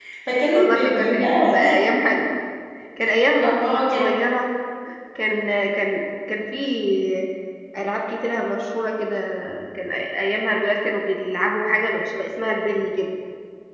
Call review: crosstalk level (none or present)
present